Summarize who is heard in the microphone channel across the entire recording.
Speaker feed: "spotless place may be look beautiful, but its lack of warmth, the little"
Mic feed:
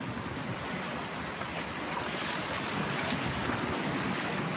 neither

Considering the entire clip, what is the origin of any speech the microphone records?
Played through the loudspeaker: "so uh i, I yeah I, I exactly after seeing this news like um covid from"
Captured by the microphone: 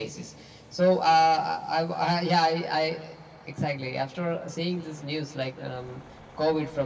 echo only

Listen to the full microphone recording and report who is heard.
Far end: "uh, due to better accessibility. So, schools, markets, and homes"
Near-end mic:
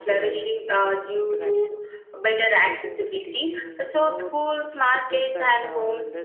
both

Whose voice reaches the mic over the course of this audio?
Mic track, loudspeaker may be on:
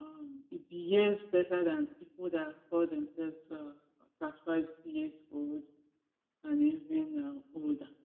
echo only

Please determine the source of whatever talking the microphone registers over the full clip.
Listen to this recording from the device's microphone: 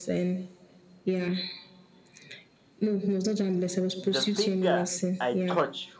both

